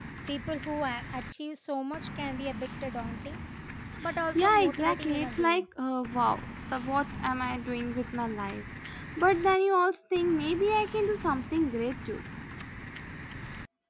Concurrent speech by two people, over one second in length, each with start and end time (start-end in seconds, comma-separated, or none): 4.4-5.6